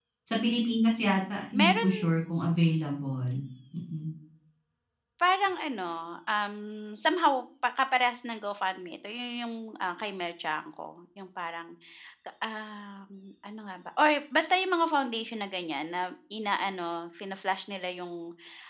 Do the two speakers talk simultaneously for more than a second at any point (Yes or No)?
No